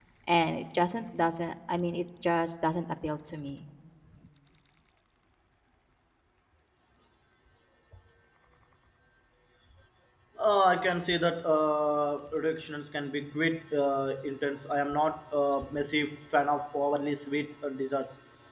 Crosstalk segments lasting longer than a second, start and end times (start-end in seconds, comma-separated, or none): none